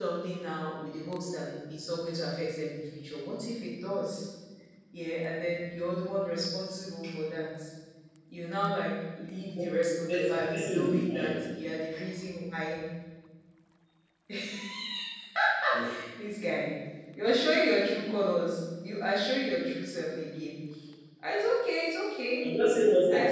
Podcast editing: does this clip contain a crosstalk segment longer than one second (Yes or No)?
Yes